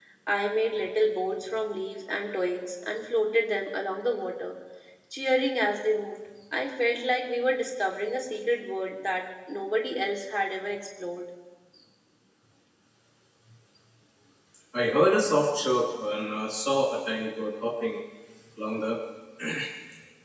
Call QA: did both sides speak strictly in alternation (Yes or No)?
Yes